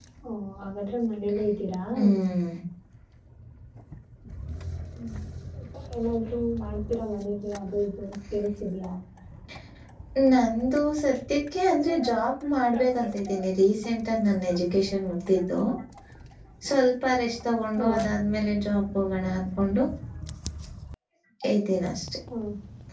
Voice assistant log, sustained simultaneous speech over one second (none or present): none